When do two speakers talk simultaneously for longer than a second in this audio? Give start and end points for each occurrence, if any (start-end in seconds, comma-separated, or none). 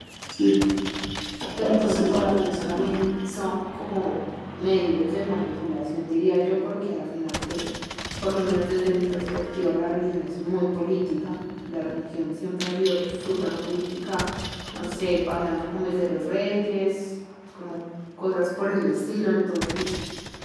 1.6-3.0